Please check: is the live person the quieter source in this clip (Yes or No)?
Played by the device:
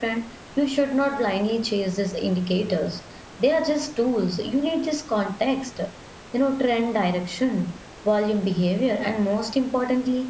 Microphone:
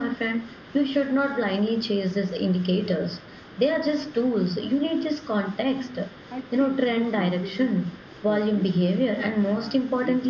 Yes